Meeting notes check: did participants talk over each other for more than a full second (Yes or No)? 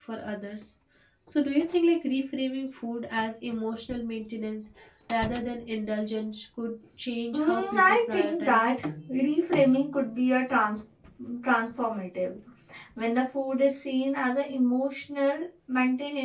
Yes